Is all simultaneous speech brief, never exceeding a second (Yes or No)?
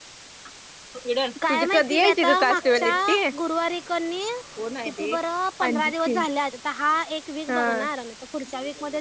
No